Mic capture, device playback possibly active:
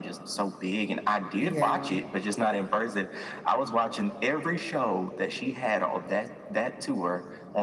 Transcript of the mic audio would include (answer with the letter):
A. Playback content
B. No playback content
A